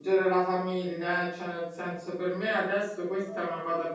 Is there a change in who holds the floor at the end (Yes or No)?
No